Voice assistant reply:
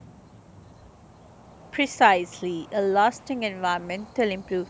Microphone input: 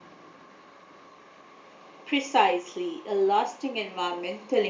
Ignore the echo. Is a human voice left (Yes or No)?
No